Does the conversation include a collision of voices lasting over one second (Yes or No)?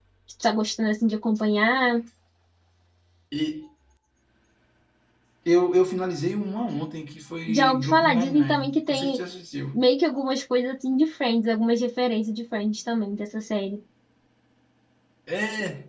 Yes